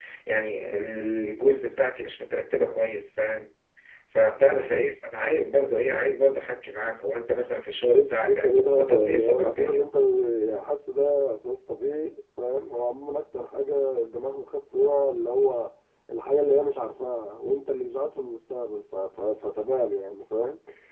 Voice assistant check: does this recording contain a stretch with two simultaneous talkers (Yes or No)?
Yes